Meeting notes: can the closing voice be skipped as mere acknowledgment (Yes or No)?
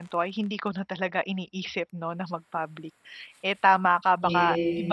Yes